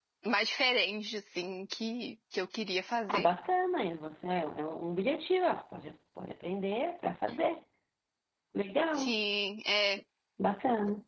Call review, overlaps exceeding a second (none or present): none